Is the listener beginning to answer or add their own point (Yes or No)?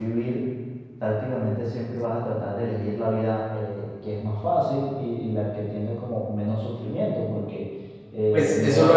Yes